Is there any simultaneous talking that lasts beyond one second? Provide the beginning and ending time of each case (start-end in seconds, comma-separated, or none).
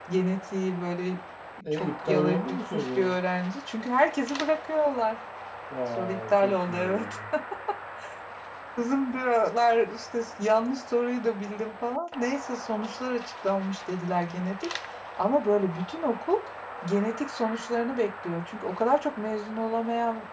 1.7-3.0, 6.0-7.2